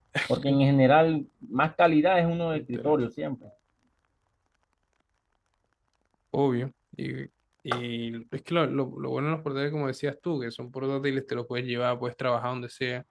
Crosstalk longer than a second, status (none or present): none